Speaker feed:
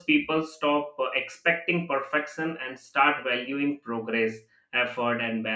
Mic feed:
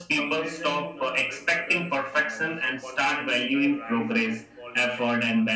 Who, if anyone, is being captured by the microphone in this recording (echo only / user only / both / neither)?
both